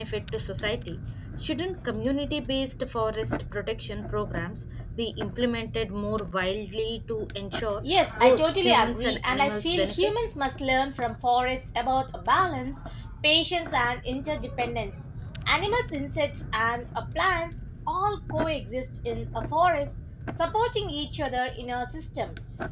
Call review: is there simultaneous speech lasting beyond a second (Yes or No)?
Yes